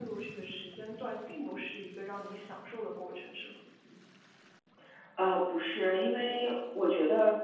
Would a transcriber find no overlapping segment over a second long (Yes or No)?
Yes